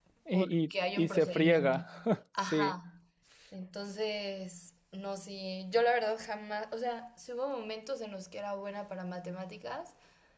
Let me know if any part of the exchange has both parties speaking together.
Yes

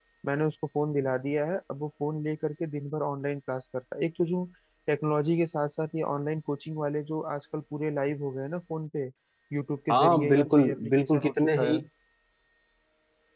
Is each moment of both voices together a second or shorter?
No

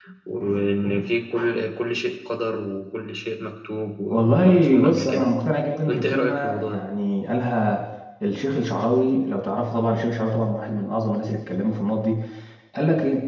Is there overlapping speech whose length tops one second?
Yes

